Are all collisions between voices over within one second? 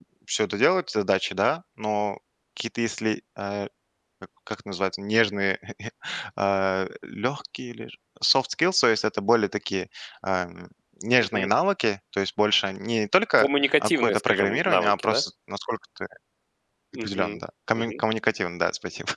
No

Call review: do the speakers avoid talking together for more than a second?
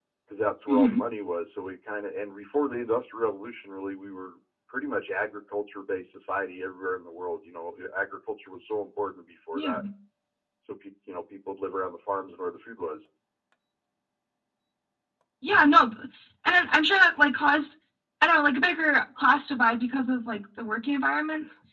Yes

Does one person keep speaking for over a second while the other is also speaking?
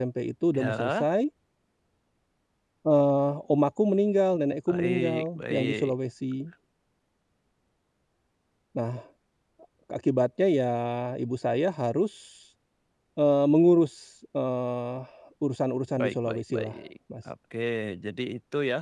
Yes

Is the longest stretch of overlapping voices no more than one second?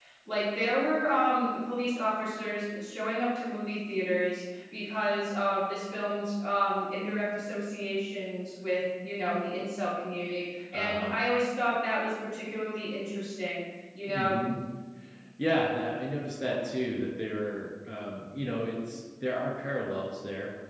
Yes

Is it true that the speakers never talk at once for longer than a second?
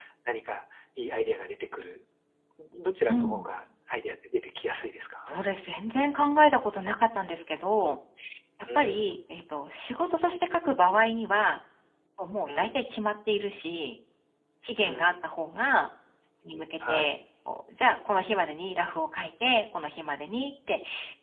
Yes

